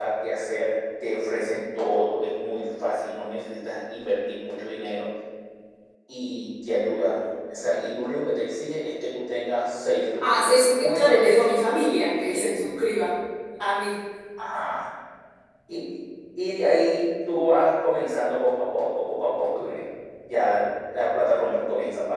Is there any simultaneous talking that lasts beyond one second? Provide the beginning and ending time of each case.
10.2-11.4

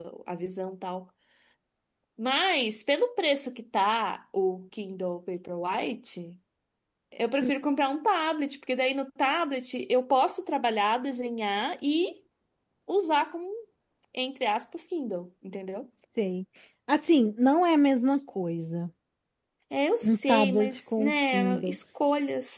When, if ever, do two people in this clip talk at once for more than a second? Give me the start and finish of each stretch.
20.0-21.8

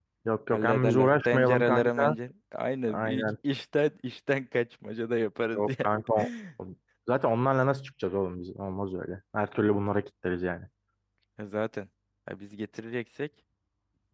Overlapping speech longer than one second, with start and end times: 0.5-2.2

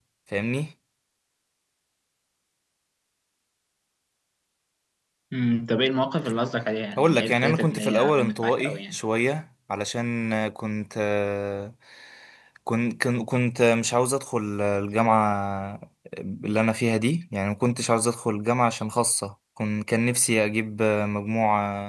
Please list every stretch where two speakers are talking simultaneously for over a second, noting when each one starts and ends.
7.0-9.0

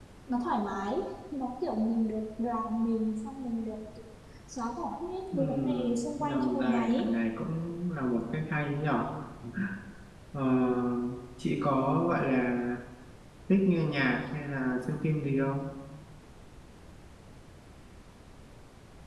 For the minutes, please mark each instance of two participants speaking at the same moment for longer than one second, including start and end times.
5.3-7.0

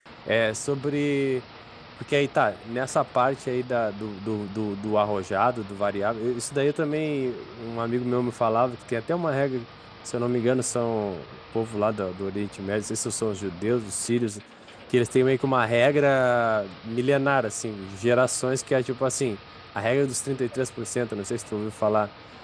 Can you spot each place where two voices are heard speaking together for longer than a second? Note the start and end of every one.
none

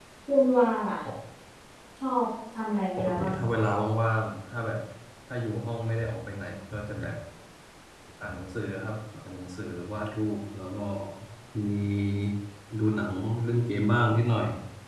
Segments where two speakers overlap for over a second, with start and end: none

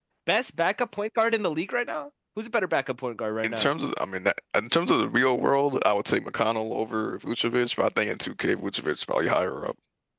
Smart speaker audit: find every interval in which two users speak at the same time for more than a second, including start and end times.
none

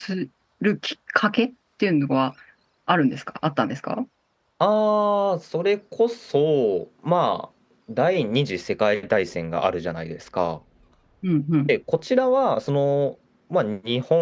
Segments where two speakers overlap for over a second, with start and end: none

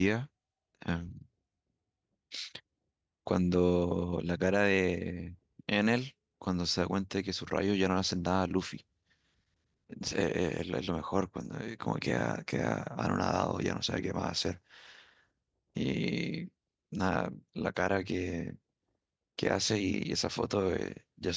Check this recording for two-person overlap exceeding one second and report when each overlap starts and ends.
none

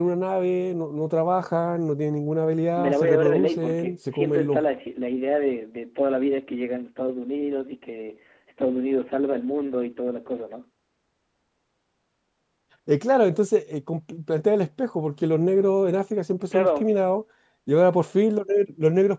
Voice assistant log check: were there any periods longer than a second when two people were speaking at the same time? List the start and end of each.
2.8-4.6

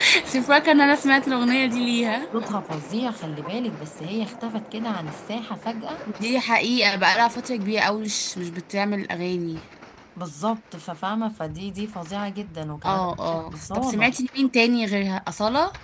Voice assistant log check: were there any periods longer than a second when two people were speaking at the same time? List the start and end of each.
12.8-14.2

